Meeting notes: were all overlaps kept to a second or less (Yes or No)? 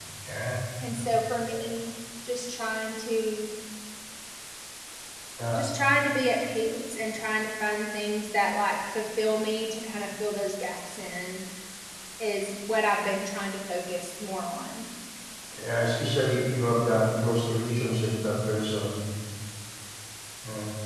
Yes